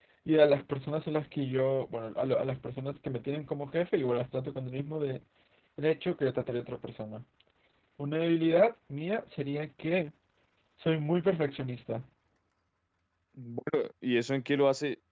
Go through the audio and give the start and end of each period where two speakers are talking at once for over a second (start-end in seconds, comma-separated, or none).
none